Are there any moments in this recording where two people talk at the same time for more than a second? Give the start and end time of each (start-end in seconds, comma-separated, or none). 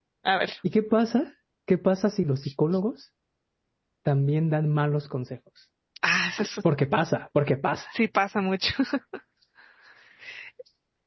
none